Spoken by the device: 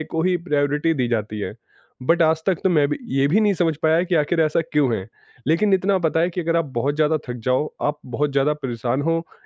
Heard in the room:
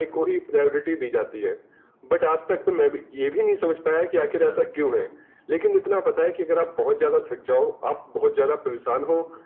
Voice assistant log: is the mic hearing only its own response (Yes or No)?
No